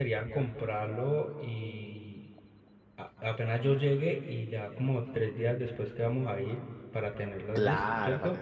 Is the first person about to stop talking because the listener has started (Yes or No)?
Yes